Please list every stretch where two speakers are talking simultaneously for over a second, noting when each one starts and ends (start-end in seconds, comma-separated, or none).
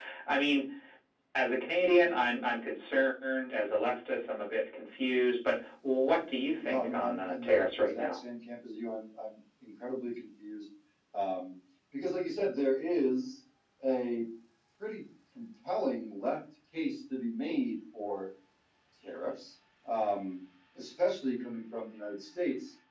6.6-8.2